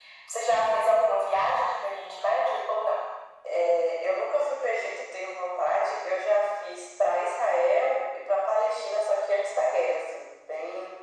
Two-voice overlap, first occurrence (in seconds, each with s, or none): none